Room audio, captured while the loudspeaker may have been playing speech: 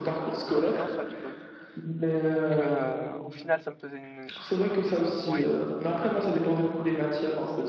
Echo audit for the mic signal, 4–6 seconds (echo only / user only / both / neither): both